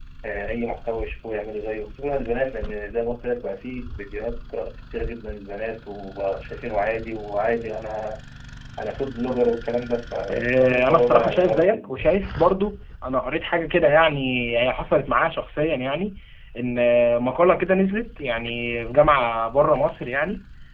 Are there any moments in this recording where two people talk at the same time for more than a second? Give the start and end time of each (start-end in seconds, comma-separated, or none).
10.3-12.1